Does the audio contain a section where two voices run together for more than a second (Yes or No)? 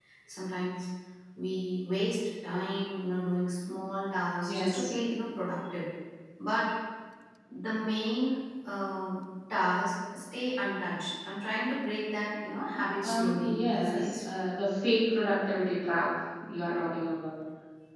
Yes